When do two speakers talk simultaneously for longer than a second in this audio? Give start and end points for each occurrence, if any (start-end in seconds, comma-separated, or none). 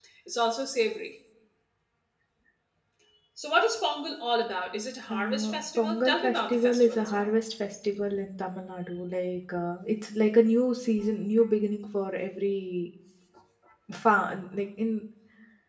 5.1-7.3